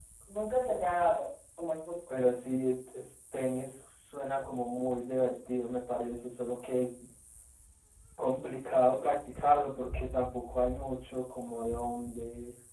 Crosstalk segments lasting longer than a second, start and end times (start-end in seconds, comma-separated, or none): none